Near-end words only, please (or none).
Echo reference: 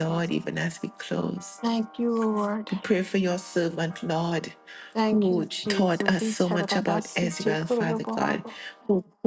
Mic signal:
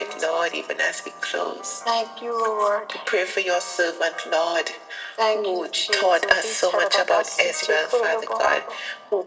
none